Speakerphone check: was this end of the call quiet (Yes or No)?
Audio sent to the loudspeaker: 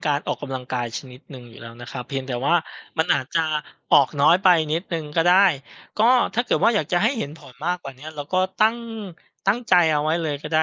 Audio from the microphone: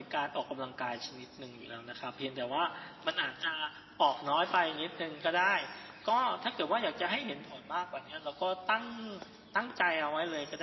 Yes